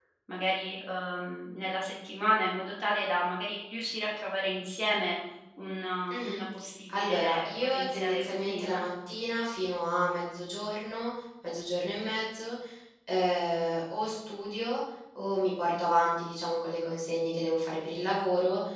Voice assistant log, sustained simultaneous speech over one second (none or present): present